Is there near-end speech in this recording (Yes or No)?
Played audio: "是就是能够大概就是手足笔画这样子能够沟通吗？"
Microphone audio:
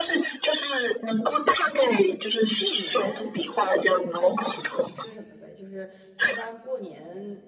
Yes